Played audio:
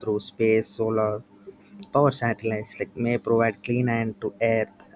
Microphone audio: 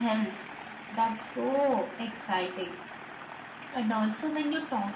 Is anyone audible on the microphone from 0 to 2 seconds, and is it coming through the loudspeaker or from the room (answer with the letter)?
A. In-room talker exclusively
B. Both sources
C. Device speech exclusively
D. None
A